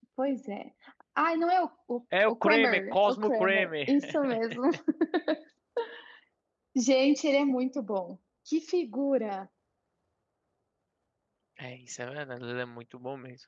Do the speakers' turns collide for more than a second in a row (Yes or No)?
Yes